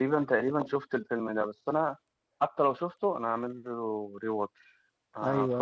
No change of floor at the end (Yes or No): No